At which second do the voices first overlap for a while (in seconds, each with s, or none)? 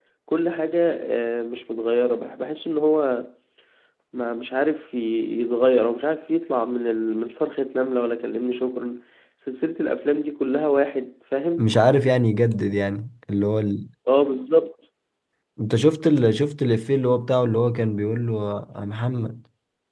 none